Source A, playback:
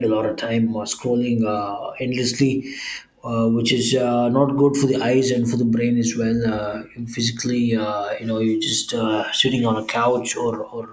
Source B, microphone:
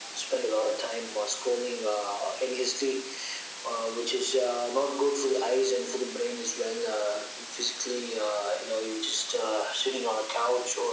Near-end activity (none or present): none